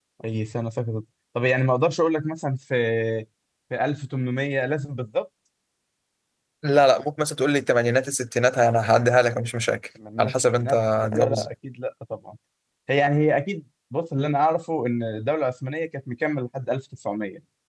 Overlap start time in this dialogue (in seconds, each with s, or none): 10.0 s